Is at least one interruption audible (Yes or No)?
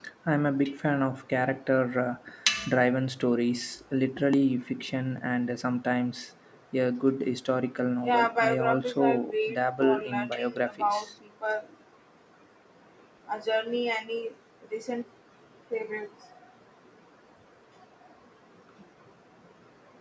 Yes